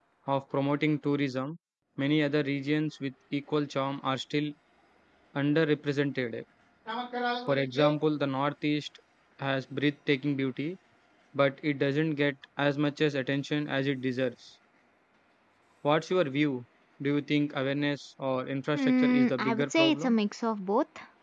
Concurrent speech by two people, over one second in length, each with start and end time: 18.7-20.2

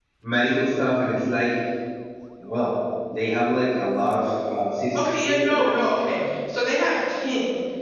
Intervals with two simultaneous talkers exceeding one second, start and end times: 5.0-6.2

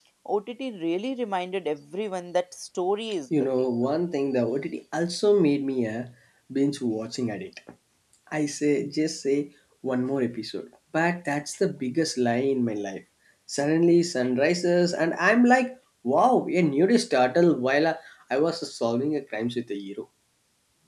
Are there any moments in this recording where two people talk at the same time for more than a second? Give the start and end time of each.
none

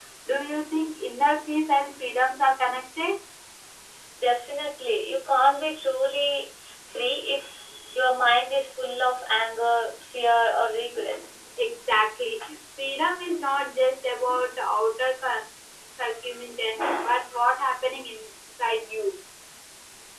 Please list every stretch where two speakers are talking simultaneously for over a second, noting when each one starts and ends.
none

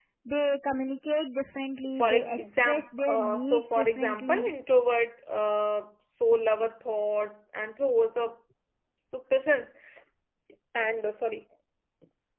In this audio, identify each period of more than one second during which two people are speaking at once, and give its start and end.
2.0-4.5

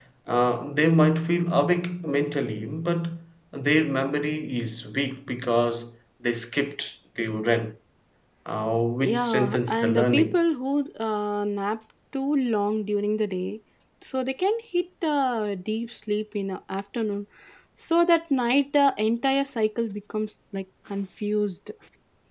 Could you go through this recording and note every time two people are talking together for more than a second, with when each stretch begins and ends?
9.0-10.4

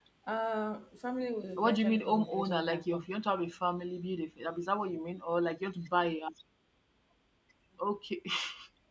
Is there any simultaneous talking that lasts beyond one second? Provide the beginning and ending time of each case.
1.6-3.0

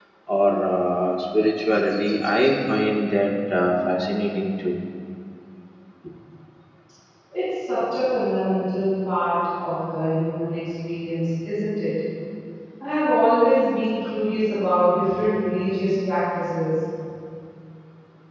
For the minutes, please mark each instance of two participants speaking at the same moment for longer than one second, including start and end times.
none

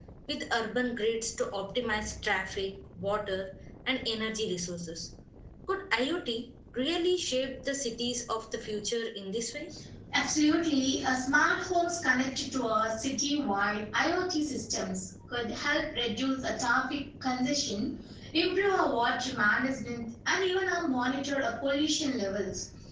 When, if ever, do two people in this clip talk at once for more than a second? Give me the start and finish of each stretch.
none

